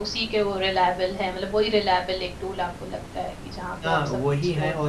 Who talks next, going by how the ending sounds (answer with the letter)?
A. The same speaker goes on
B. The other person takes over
B